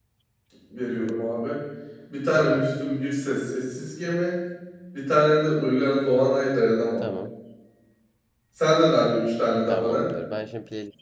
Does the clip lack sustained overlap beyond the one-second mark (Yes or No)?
Yes